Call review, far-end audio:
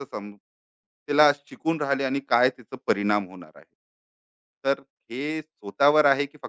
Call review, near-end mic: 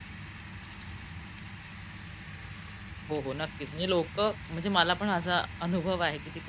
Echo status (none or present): none